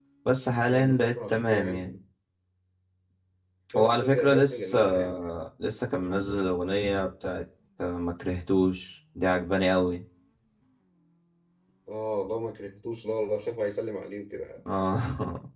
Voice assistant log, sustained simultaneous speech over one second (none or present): present